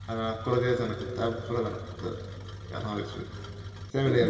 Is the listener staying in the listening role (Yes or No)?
No